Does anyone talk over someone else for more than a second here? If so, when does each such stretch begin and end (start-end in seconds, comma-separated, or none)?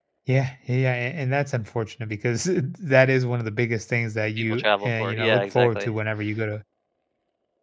4.4-5.9